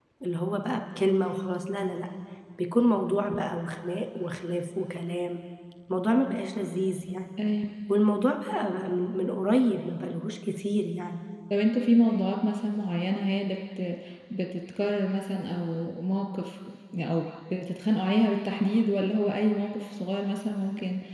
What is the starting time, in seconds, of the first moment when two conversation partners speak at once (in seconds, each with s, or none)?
none